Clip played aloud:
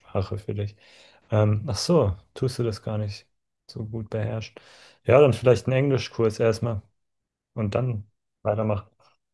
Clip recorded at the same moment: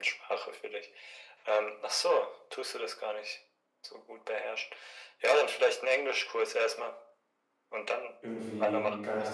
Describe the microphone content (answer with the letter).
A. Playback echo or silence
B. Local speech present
B